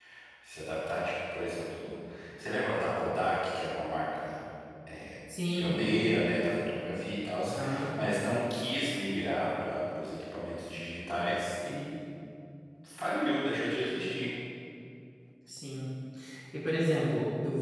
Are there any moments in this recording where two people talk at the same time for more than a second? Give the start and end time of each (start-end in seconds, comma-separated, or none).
none